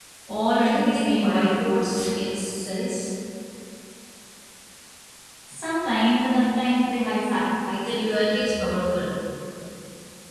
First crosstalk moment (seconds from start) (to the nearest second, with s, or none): 1 s